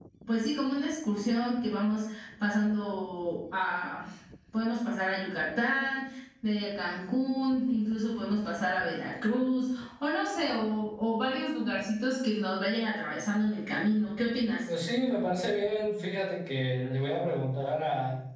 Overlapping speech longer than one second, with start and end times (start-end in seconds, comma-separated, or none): none